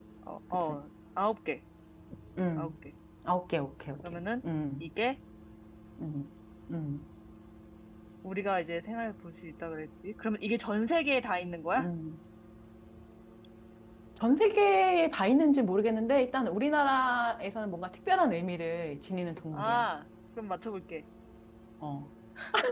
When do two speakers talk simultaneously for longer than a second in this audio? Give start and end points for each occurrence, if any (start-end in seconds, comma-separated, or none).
none